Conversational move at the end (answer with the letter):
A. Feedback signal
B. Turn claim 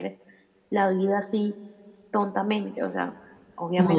B